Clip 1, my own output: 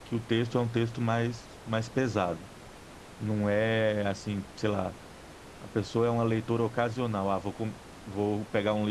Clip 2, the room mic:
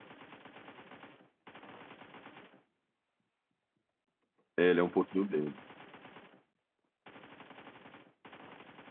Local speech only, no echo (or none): ele é um pouquinho dele.